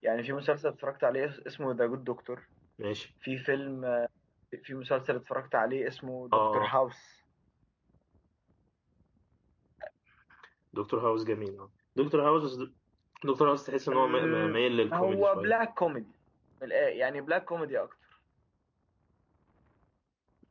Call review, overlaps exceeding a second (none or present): present